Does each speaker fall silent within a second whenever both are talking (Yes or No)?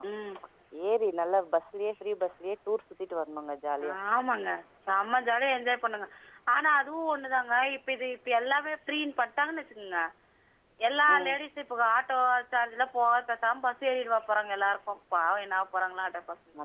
Yes